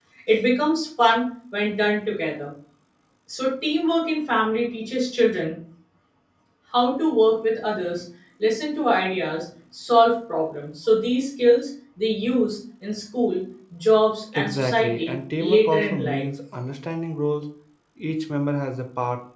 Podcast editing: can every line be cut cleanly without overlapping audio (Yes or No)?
No